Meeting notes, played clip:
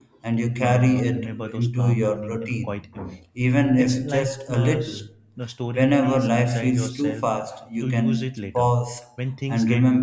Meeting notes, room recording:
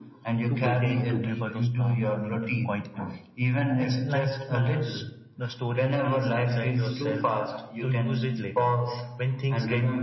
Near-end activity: present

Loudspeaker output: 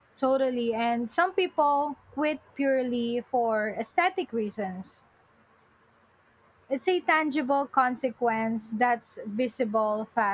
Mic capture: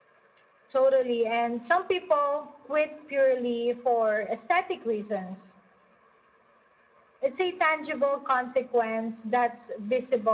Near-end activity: none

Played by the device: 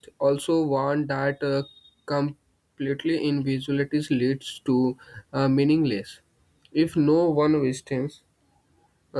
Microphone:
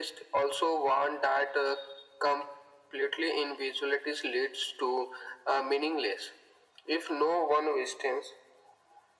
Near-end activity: none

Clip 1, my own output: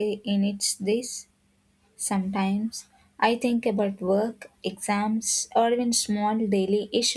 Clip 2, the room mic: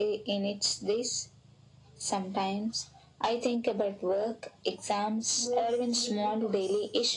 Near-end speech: present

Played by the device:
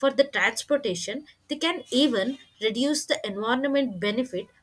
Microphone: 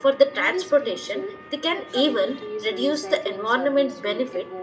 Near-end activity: present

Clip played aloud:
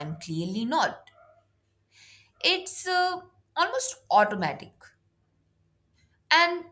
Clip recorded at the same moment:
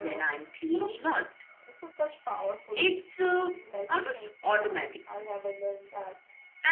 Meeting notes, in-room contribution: present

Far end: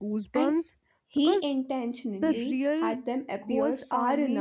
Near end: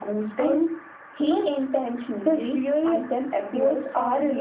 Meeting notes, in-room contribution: none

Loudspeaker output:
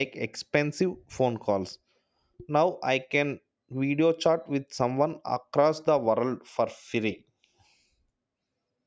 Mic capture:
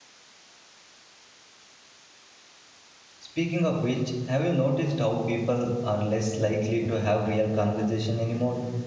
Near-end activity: present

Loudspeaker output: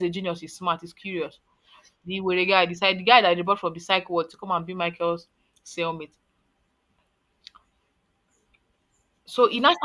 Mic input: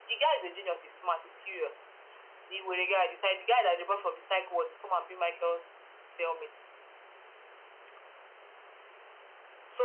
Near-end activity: none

